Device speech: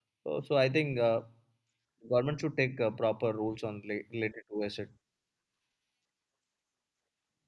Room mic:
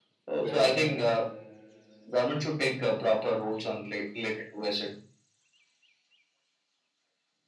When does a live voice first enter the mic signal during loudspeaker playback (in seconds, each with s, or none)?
0.3 s